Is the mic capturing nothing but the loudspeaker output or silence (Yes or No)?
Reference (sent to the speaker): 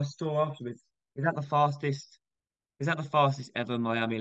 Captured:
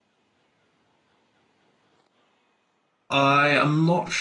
No